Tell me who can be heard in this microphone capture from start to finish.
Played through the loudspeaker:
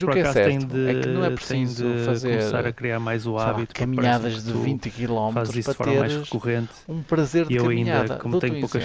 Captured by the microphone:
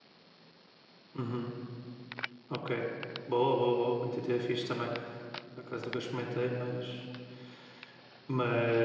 user only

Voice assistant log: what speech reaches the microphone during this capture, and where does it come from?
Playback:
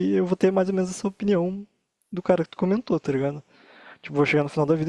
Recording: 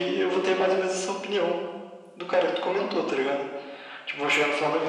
echo only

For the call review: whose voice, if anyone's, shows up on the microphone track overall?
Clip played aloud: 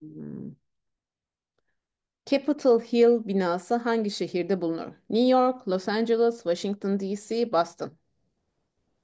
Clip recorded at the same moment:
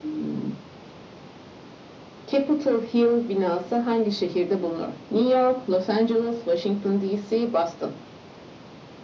echo only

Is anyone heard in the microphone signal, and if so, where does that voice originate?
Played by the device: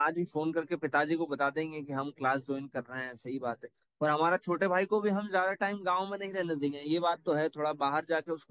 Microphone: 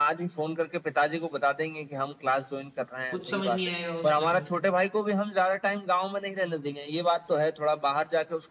both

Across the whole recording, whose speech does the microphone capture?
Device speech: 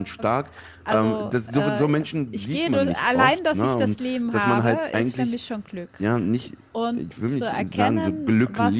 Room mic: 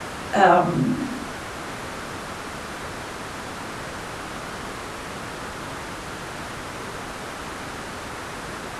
user only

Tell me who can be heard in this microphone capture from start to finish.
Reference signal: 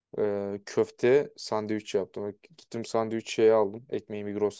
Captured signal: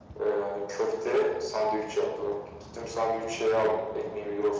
echo only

